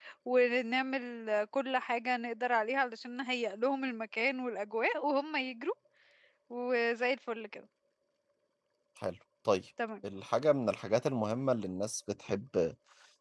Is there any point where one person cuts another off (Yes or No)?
No